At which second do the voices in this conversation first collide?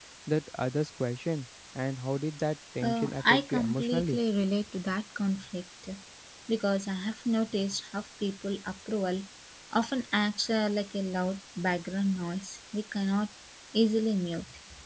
3 s

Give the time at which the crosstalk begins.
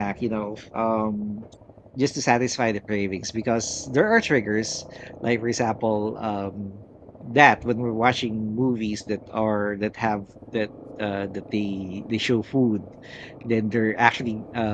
none

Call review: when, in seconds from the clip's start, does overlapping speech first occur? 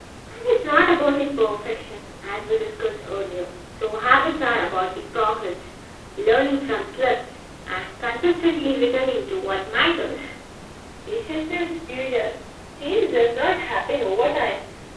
none

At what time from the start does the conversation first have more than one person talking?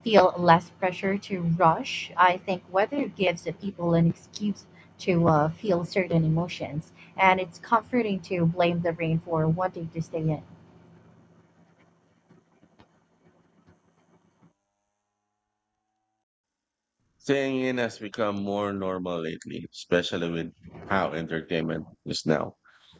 none

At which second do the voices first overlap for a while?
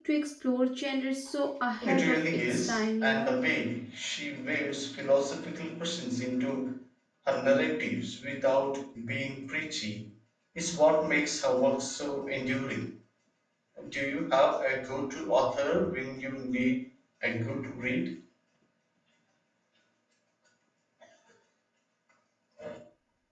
2 s

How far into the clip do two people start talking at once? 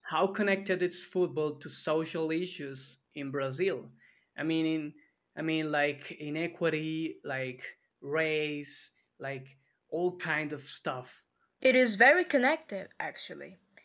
none

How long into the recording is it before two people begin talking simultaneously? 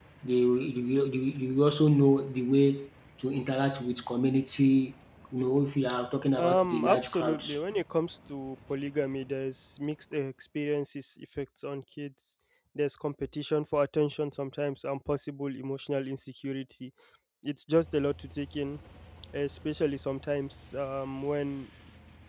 6 s

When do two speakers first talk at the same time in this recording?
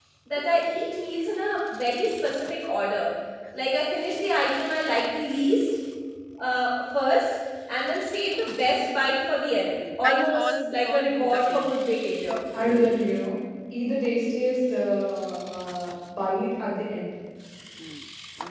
10 s

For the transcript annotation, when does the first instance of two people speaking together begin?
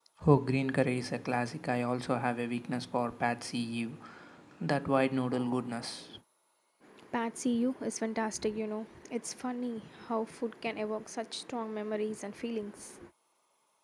none

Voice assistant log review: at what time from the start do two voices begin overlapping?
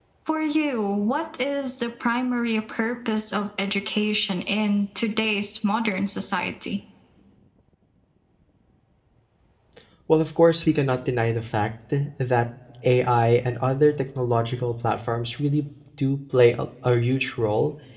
none

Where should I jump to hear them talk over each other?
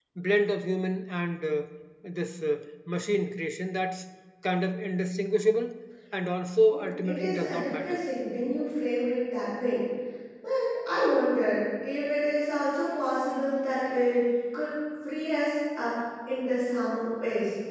7 s

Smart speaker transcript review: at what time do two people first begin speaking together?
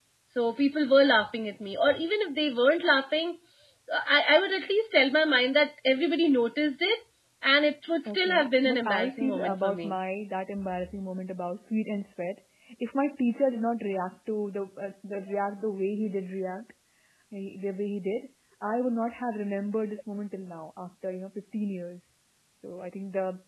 8 s

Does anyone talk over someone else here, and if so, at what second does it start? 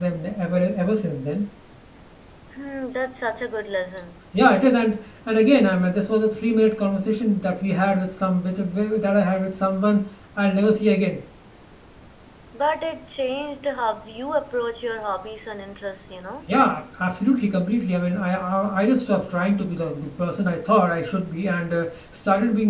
none

